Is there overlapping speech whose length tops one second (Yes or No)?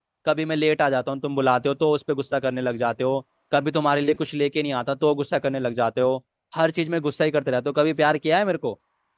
No